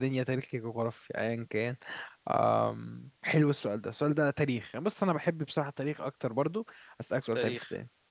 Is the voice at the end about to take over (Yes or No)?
No